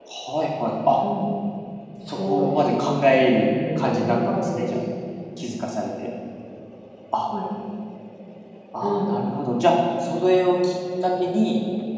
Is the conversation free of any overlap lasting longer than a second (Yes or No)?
No